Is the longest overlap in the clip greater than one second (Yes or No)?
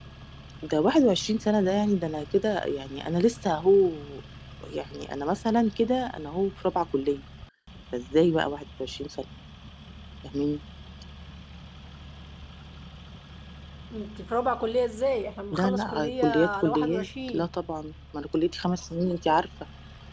Yes